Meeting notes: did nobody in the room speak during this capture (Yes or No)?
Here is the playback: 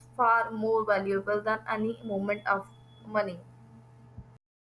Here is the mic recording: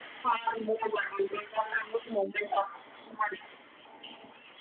Yes